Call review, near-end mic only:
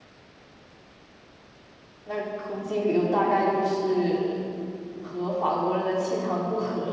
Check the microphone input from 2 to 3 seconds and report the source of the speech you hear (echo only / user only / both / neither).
user only